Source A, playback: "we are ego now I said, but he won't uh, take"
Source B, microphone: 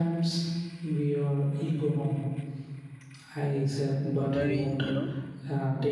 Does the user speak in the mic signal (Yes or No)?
Yes